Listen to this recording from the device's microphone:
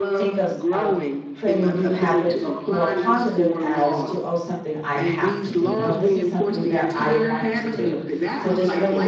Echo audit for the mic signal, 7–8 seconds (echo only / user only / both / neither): both